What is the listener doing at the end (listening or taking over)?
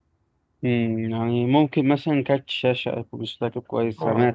taking over